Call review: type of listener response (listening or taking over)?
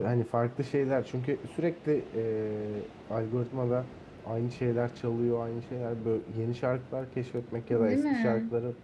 listening